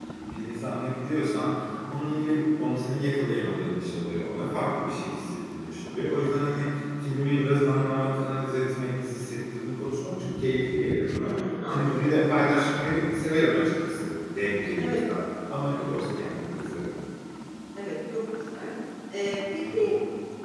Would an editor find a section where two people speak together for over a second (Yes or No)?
No